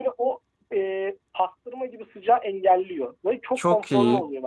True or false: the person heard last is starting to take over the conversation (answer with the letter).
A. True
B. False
A